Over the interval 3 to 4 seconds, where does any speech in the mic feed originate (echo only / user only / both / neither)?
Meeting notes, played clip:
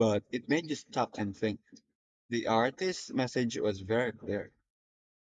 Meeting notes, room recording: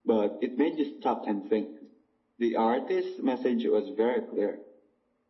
echo only